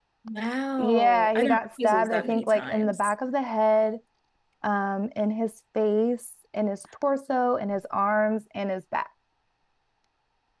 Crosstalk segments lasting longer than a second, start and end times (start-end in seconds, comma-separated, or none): 0.8-3.1